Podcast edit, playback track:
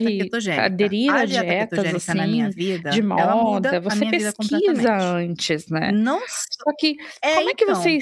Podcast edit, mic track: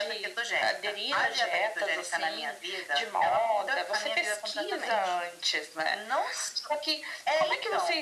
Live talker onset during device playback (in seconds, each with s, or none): none